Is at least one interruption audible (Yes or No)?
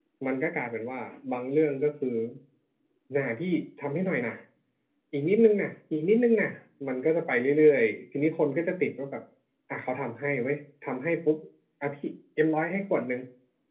No